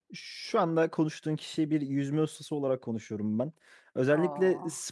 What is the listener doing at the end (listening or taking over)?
listening